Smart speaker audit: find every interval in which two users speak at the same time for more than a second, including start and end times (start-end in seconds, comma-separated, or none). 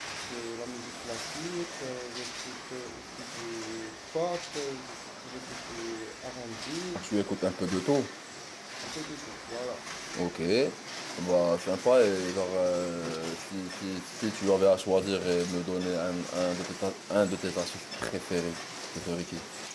none